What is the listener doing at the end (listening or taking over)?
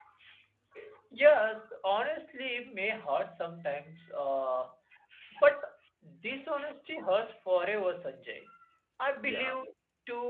listening